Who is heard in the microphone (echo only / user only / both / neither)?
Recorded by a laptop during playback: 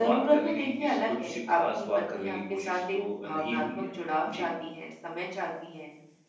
echo only